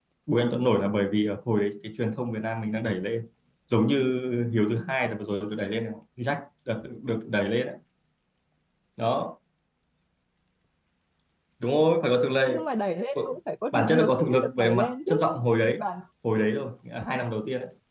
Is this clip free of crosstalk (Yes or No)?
No